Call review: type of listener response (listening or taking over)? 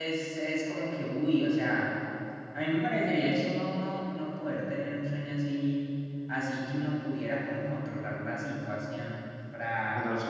taking over